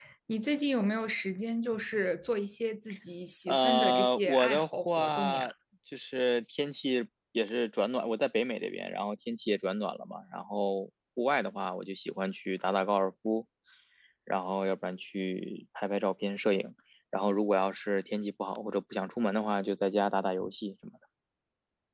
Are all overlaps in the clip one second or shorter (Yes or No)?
No